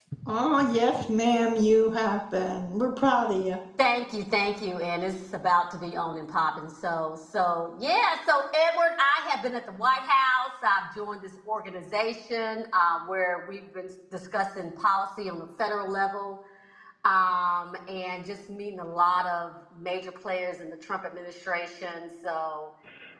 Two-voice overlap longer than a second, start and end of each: none

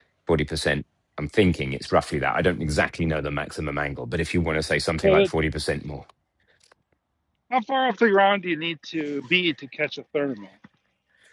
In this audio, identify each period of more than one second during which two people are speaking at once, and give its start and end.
none

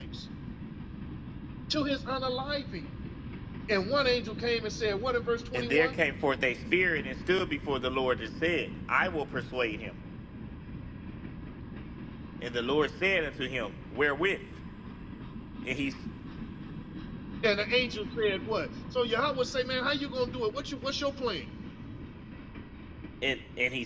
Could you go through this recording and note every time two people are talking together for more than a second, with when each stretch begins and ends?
none

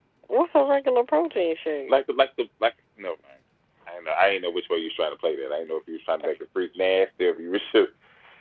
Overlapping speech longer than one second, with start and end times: none

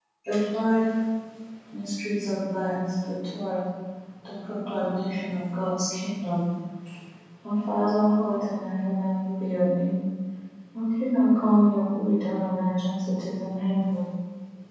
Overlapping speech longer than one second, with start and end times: none

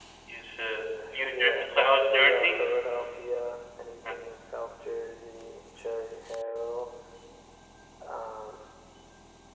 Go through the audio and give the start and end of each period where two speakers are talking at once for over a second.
1.3-2.7

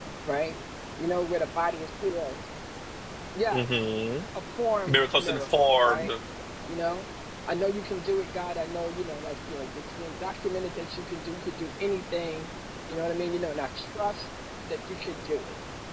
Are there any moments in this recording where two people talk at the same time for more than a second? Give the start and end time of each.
4.9-6.1

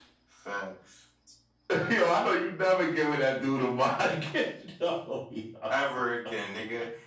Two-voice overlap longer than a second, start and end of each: none

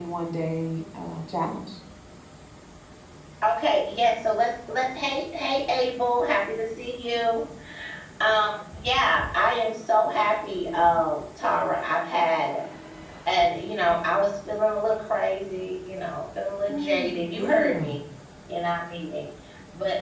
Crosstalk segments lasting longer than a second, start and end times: 16.7-18.0

